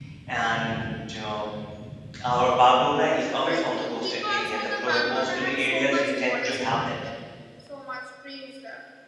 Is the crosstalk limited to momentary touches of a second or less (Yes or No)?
No